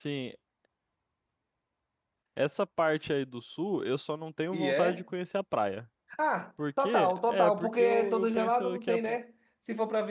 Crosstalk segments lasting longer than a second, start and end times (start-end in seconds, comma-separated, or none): 6.8-8.9